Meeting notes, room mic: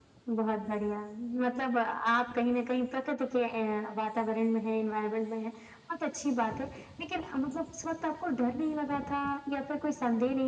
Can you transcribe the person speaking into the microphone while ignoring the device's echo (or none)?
none